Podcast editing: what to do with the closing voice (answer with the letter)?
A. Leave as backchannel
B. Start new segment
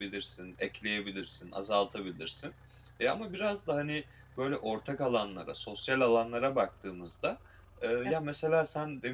A